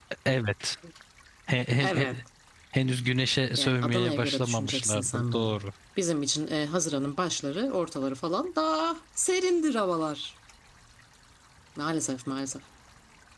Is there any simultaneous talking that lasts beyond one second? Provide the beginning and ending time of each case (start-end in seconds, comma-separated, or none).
3.6-5.6